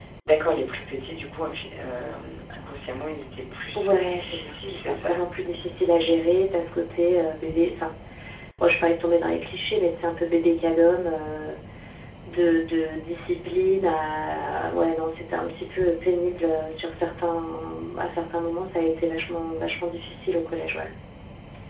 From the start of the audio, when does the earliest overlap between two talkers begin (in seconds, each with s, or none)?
3.7 s